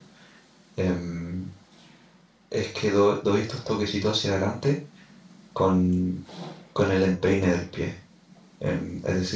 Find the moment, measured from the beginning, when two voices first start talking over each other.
none

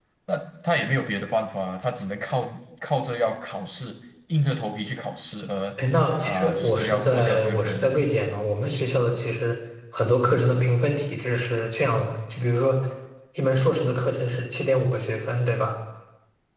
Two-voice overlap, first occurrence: 6 s

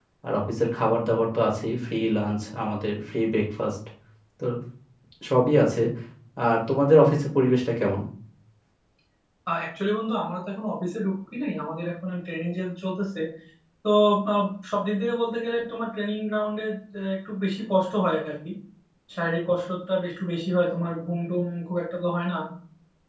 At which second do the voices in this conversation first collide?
none

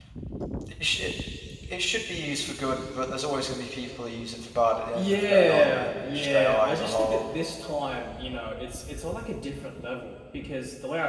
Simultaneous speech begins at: 5 s

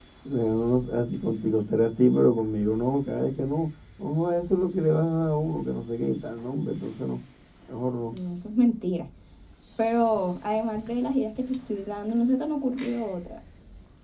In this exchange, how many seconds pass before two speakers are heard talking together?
none

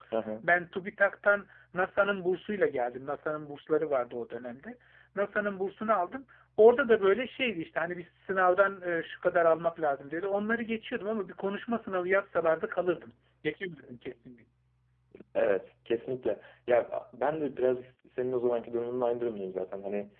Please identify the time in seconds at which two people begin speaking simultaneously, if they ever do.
none

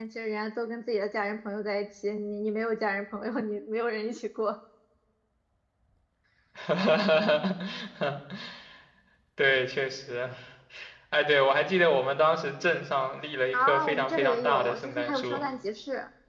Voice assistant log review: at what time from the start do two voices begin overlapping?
14 s

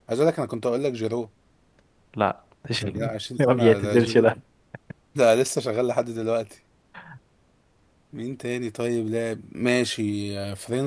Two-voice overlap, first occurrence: 3 s

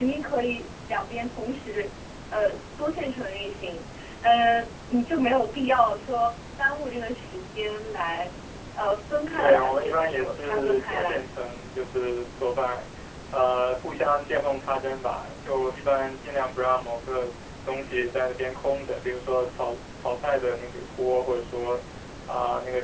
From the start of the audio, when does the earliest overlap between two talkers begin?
9 s

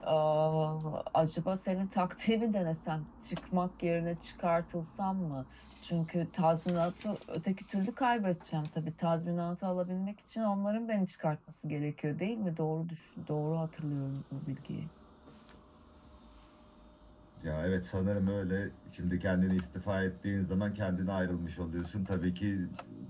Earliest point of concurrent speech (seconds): none

